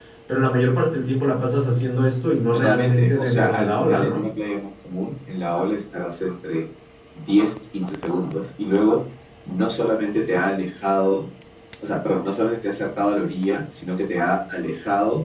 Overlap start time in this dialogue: 3 s

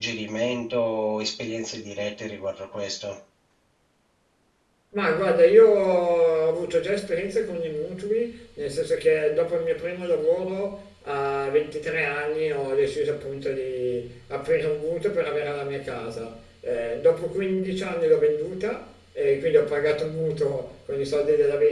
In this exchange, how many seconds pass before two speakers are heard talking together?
none

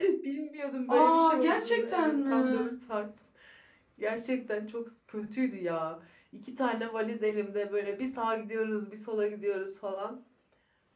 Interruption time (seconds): 1 s

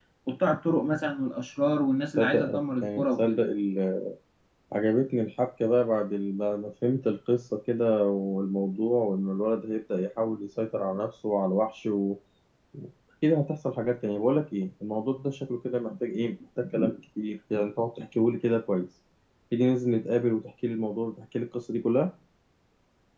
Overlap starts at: 2 s

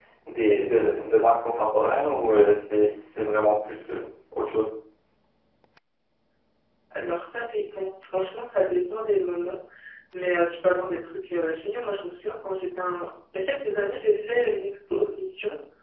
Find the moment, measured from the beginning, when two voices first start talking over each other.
none

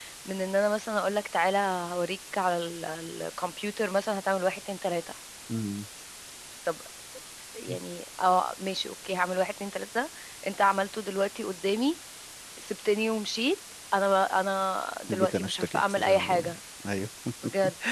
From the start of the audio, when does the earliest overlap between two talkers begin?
15 s

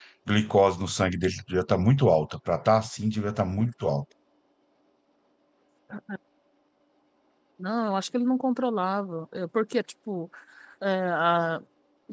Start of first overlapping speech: none

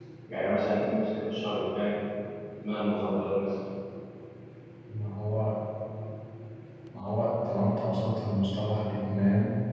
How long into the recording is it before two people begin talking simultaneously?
none

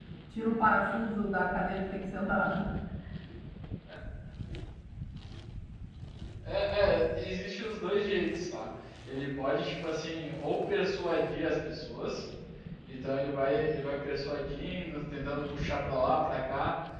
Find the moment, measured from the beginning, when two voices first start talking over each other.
none

